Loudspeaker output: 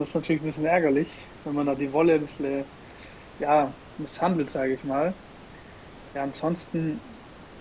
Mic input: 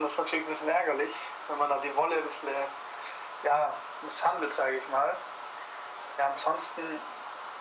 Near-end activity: none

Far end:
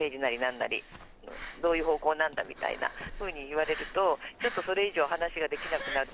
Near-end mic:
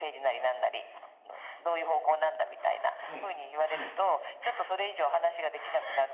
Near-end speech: present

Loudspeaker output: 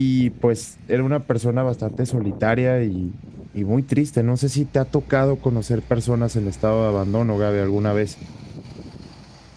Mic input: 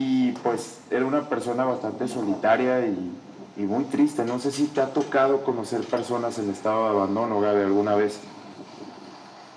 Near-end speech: present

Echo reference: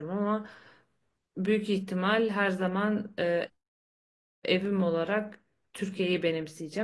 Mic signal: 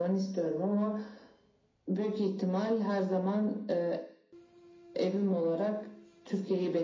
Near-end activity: none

